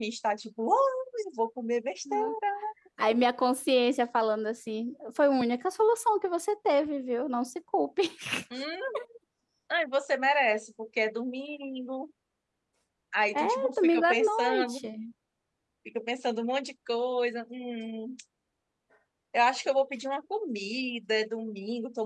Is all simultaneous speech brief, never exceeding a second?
No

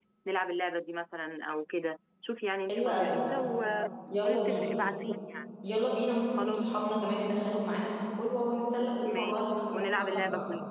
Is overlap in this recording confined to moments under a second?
No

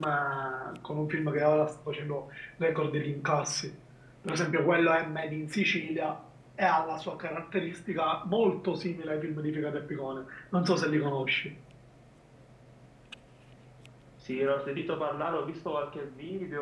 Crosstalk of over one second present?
No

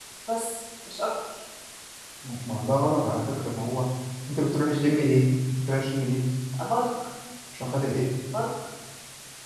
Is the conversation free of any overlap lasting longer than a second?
Yes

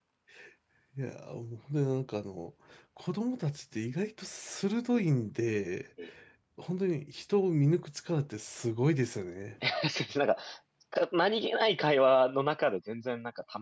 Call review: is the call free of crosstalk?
Yes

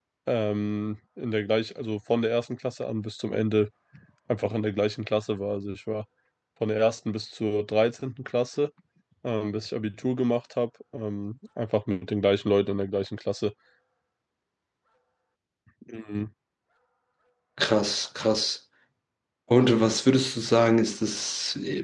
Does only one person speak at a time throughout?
Yes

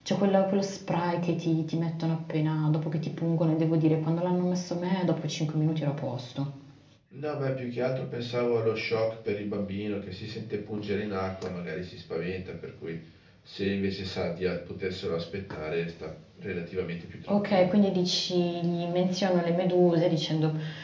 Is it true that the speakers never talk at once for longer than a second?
Yes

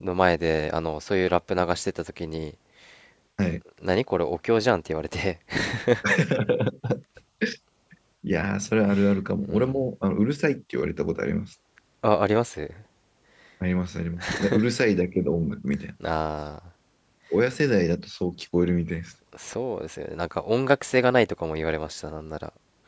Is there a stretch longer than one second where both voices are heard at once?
No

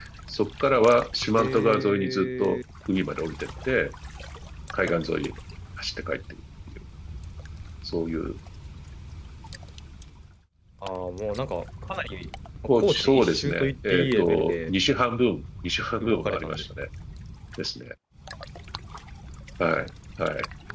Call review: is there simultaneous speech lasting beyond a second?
Yes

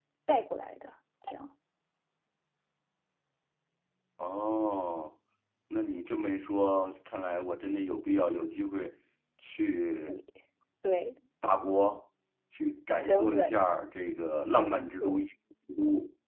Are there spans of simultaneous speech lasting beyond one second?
No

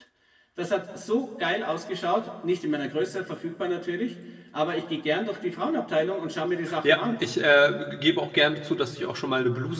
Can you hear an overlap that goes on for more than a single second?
No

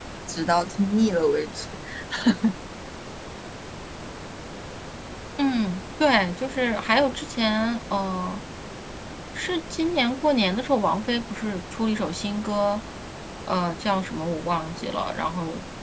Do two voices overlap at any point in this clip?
No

